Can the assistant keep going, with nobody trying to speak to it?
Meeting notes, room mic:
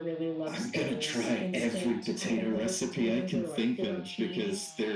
Yes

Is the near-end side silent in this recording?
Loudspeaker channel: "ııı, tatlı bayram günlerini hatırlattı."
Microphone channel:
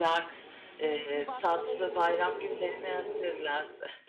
No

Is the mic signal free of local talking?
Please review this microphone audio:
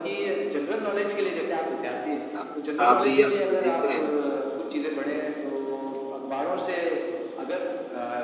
No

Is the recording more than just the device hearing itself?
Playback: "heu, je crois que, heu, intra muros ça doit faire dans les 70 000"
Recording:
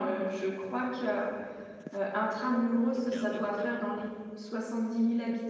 Yes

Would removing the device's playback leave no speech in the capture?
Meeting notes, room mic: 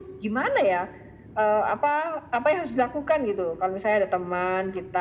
Yes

